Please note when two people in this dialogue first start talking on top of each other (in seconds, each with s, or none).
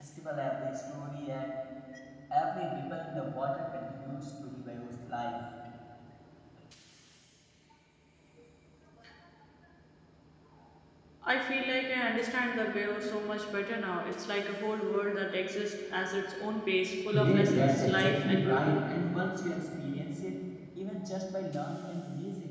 17.1 s